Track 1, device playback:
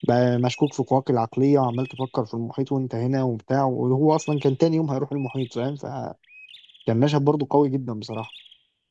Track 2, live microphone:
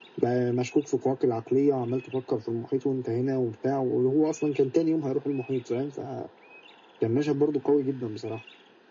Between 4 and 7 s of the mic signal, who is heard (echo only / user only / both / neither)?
echo only